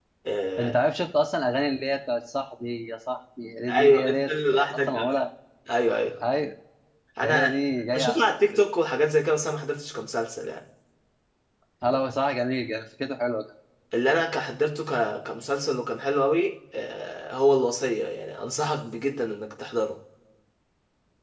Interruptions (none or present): present